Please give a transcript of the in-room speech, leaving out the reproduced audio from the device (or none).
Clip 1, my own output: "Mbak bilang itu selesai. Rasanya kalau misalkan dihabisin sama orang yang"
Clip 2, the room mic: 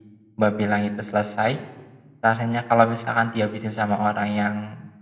none